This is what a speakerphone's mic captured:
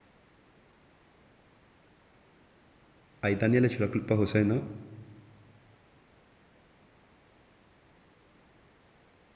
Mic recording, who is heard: user only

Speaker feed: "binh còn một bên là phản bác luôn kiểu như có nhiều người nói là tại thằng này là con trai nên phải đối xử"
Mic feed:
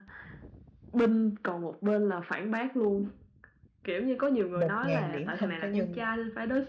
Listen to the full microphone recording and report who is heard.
both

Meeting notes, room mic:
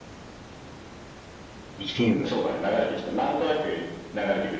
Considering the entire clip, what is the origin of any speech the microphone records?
both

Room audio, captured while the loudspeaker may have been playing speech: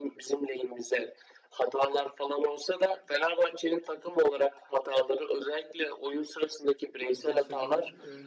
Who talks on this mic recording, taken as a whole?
both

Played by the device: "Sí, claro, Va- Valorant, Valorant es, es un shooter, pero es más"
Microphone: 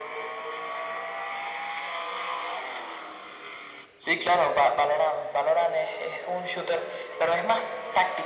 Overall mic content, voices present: echo only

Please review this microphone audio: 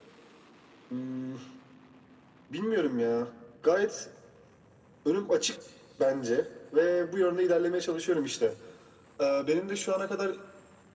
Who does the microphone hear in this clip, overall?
echo only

